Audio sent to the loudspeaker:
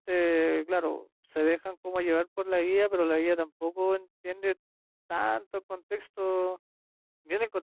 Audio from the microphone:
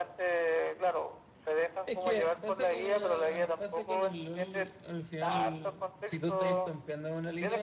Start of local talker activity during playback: 1.8 s

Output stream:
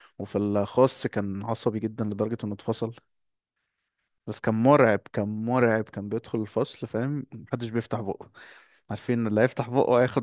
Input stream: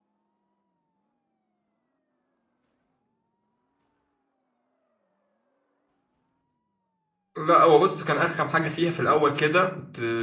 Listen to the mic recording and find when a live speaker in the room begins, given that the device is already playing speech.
7.4 s

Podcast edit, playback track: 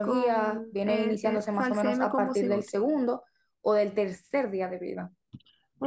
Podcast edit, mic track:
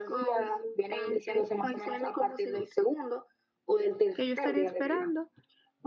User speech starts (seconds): 4.1 s

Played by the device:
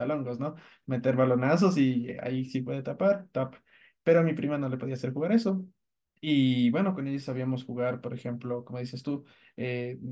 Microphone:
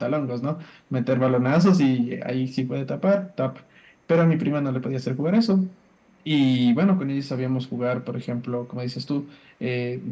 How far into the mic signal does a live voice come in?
none

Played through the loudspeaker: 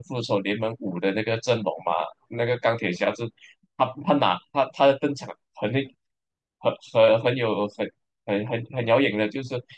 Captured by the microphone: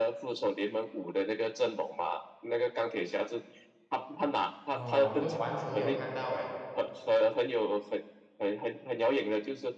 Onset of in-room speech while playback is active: 4.7 s

